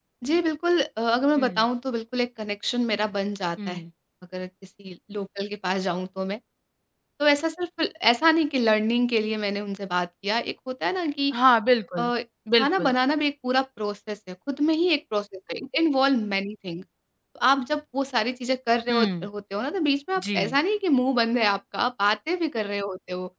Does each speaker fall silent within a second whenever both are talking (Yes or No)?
Yes